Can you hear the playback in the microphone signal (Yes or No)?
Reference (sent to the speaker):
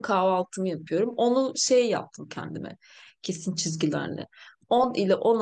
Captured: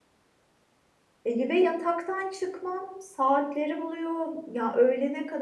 No